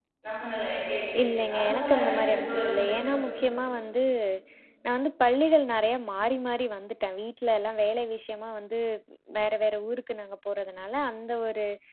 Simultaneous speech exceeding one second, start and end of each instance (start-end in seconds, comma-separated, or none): 1.2-3.2